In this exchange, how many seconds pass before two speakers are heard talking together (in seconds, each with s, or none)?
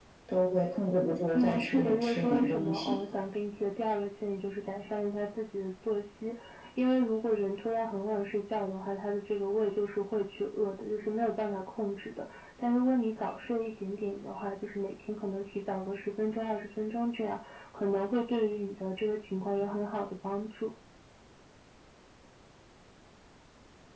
1.3 s